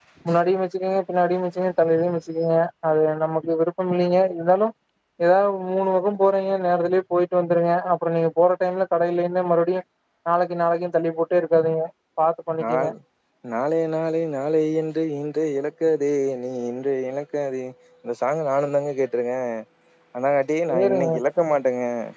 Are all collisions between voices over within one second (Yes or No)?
Yes